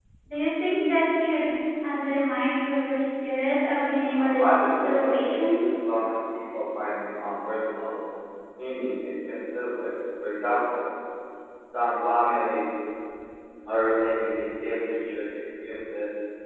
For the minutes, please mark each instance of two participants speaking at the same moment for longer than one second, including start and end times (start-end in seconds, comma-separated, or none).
4.2-5.6